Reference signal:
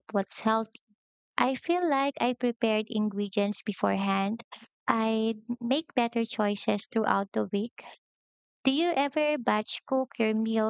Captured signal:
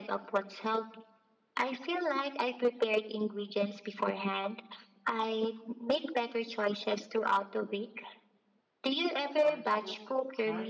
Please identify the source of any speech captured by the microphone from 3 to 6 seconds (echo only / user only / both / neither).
echo only